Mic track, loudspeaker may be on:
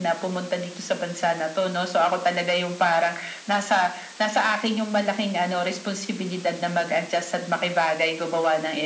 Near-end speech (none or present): none